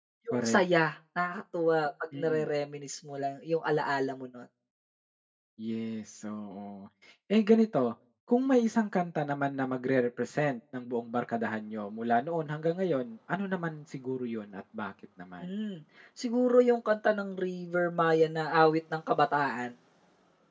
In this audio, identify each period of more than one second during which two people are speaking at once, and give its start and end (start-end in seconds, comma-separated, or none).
none